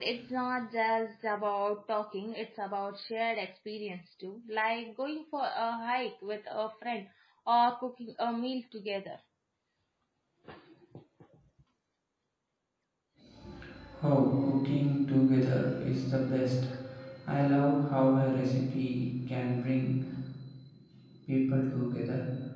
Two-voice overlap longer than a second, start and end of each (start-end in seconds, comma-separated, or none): none